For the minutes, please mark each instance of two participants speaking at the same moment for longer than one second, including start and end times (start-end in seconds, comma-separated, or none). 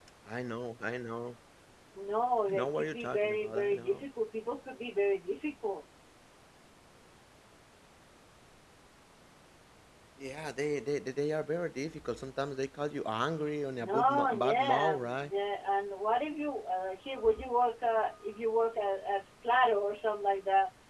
2.5-4.0, 13.9-15.3